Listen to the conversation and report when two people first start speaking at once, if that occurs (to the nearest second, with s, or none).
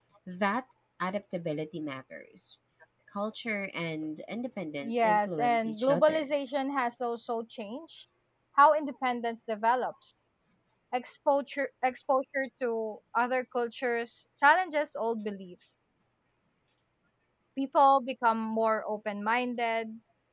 5 s